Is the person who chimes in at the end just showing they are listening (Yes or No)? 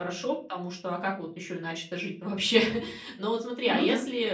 Yes